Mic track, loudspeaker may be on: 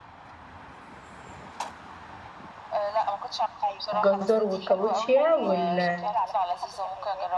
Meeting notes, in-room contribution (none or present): present